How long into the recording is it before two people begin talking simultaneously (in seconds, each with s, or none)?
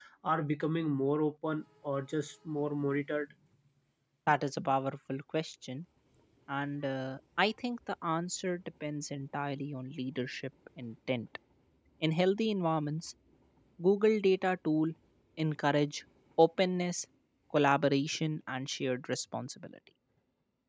none